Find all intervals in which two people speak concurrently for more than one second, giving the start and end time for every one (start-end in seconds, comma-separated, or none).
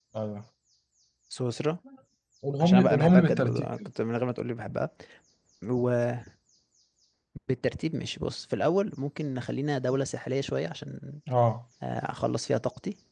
2.6-3.9